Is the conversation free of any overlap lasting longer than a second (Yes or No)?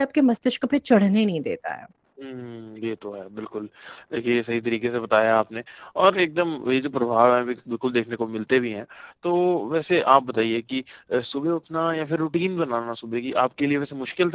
Yes